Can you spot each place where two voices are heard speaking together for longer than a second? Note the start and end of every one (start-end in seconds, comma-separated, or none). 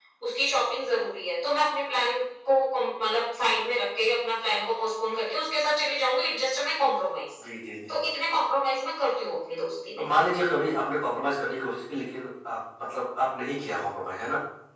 none